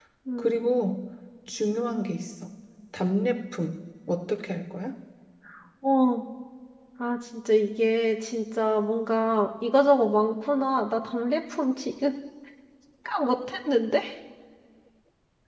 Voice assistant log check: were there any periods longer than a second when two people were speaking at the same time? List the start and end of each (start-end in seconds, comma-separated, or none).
none